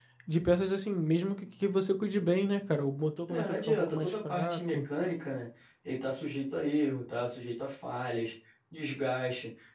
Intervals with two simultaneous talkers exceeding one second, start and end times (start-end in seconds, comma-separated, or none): 3.3-4.8